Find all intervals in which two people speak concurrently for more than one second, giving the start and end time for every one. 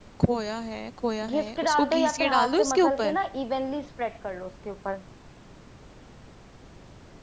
1.3-3.2

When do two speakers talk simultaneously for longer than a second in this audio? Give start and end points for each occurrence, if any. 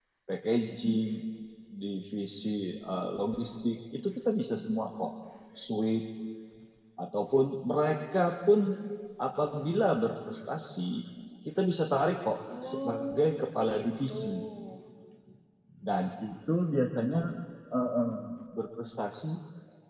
12.6-14.2

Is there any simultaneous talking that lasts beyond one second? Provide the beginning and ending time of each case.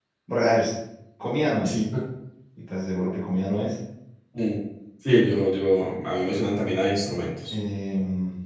none

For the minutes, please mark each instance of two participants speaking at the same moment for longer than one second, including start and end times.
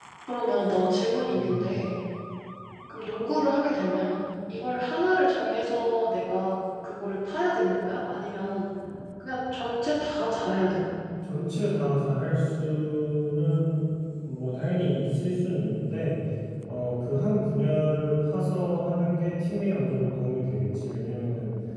none

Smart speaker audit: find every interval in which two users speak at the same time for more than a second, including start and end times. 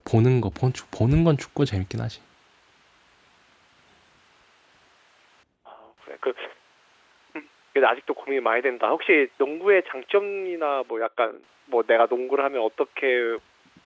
none

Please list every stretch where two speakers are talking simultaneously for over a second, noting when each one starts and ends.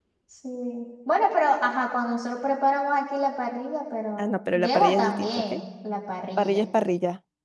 4.2-5.4

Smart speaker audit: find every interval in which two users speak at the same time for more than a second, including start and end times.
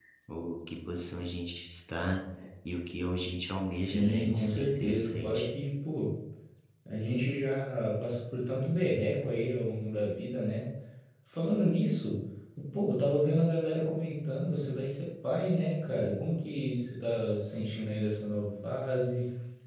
3.7-5.5

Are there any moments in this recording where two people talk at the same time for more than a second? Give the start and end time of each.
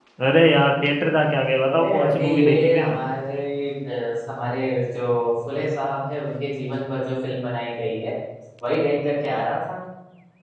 1.7-3.0

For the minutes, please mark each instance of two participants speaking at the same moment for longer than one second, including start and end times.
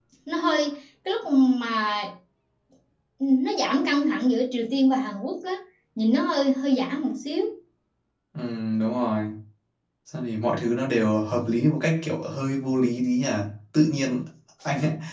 none

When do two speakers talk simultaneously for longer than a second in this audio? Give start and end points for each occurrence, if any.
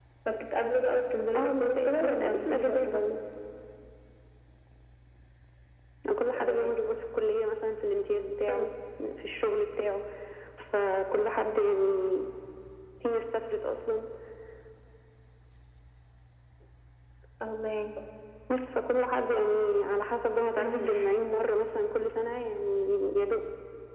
1.4-3.0

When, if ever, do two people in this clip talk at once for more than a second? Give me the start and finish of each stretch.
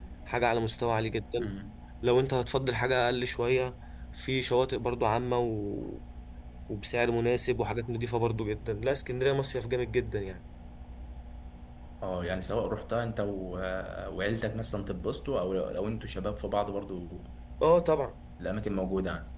none

